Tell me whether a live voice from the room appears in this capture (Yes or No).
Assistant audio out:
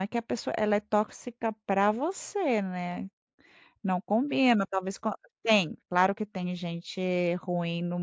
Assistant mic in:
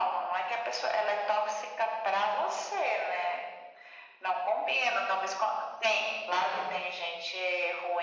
No